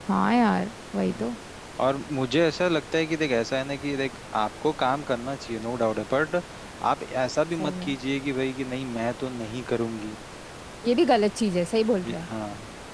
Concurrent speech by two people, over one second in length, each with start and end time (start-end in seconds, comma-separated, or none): none